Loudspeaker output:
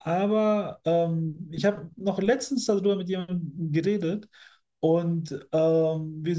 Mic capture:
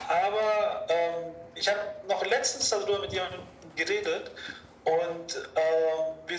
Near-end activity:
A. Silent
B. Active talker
A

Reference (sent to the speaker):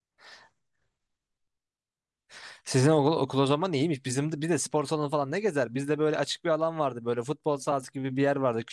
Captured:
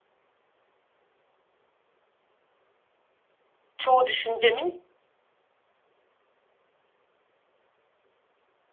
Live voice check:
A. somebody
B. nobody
A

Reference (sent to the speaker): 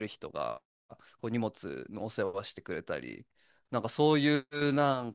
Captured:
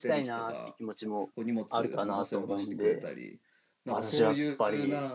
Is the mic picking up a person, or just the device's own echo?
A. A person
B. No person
A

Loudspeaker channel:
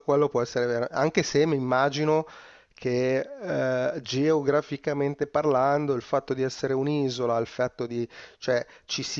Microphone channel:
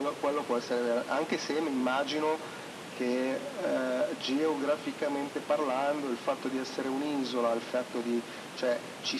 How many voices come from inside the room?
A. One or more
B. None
B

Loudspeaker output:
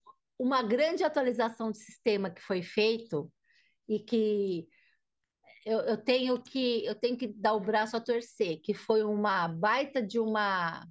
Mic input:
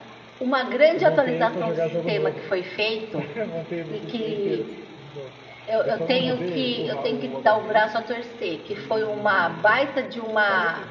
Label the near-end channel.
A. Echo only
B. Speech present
B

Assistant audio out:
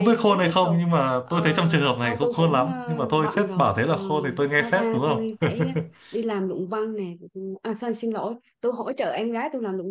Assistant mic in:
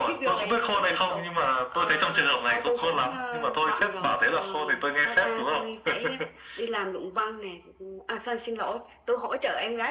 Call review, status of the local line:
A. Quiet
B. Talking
A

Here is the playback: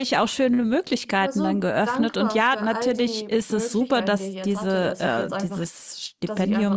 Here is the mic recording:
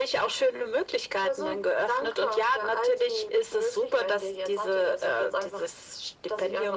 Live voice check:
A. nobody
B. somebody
A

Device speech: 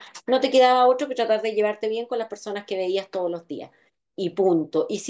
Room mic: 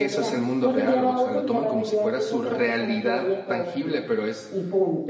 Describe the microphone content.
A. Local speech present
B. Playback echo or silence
A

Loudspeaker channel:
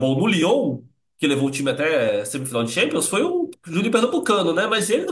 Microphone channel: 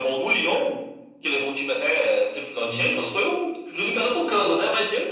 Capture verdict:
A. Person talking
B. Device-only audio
A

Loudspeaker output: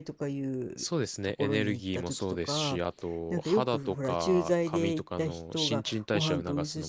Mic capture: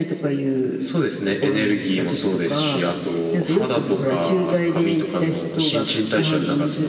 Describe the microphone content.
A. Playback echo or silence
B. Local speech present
A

